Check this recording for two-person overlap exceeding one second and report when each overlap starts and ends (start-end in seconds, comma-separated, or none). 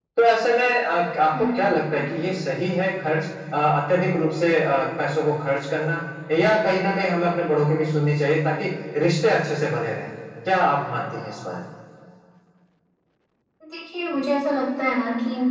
none